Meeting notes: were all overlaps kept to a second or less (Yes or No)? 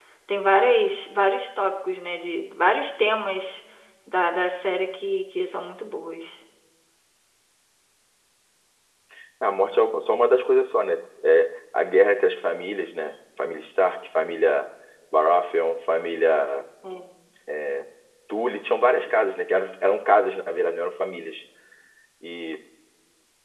Yes